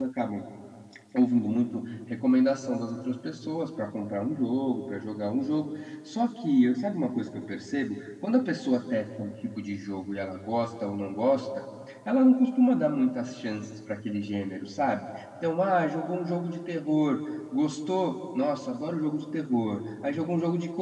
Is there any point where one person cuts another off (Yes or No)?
No